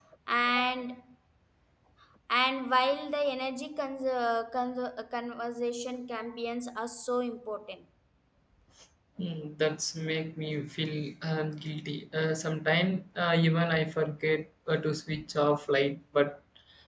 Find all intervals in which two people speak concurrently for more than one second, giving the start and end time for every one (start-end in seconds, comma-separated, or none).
none